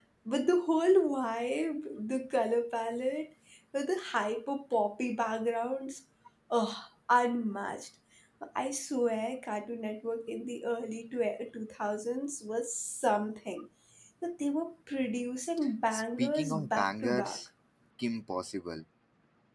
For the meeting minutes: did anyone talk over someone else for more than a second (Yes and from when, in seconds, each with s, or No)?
Yes, from 15.9 s